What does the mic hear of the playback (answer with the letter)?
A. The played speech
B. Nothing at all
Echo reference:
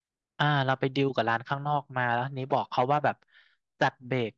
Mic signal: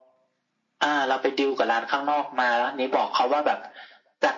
A